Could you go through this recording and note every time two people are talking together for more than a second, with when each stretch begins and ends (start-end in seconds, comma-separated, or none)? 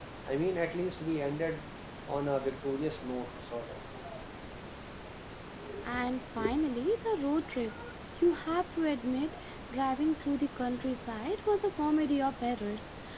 none